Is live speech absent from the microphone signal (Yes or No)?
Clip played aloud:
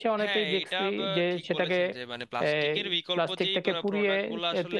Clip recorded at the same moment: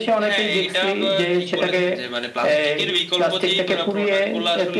Yes